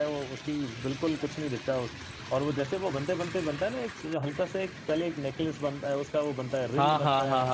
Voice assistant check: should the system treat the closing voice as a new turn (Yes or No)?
Yes